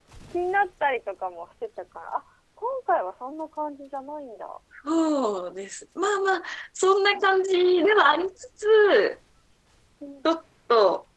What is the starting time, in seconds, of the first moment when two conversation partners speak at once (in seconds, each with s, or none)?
none